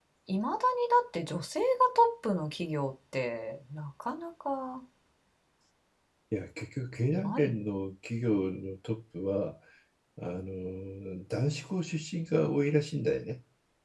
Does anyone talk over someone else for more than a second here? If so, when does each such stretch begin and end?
none

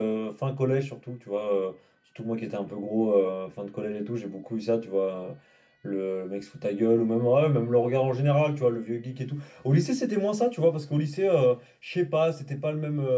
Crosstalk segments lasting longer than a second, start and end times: none

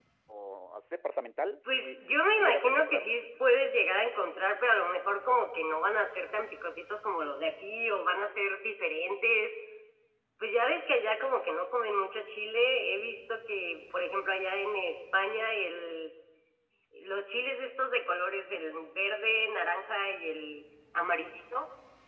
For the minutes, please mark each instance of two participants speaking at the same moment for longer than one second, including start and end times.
1.7-3.1

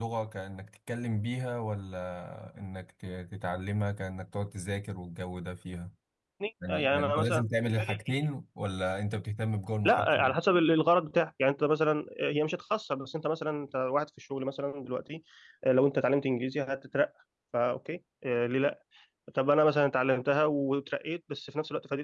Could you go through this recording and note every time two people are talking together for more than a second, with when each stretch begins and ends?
6.7-8.0

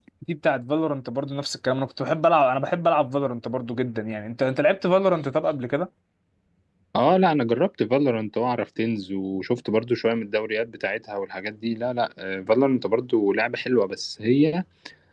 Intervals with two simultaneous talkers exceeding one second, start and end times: none

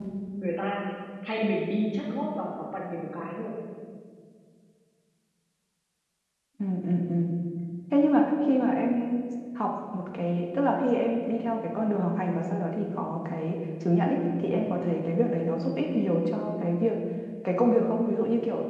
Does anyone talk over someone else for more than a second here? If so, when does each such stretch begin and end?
none

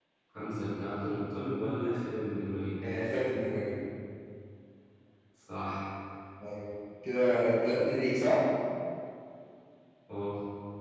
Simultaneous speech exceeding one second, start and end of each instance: none

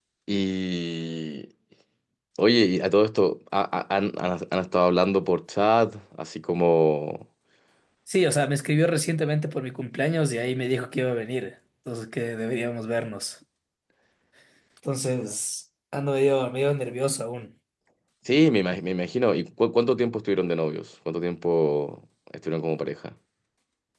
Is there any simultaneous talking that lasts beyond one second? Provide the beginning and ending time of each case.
none

